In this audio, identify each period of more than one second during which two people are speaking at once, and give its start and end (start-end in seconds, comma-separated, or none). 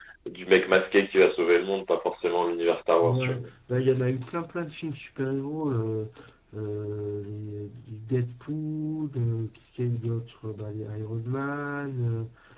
none